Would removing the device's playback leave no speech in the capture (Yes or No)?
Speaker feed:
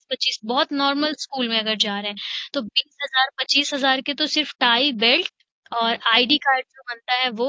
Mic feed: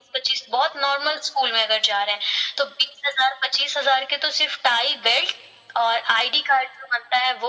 Yes